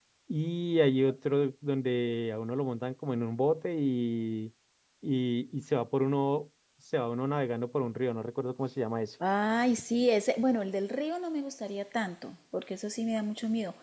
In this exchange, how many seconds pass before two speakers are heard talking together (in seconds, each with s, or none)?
none